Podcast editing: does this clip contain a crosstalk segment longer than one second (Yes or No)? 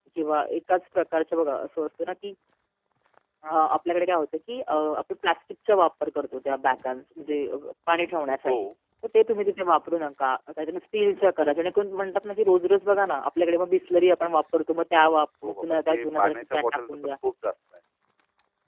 Yes